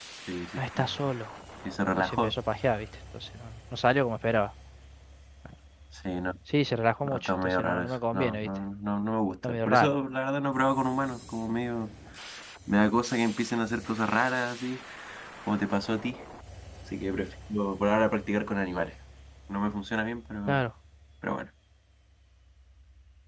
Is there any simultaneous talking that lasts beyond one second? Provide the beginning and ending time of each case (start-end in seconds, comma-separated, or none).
7.0-8.5